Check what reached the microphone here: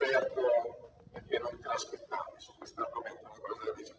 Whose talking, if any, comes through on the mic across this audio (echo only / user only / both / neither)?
echo only